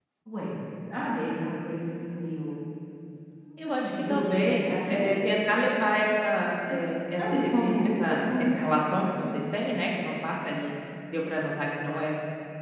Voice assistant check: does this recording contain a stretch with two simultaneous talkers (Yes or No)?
Yes